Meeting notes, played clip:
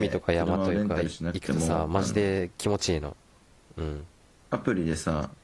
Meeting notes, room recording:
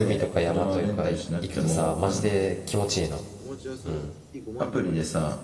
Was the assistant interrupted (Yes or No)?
Yes